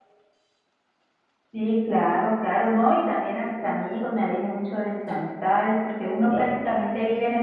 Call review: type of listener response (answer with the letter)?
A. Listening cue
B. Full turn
A